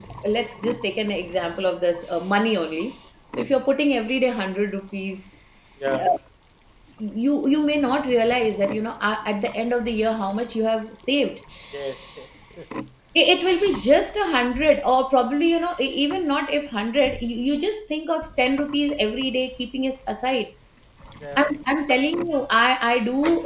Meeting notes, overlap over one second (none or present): none